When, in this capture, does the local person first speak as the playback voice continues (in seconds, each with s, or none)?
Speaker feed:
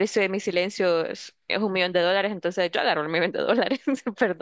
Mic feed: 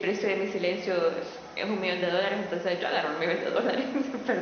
none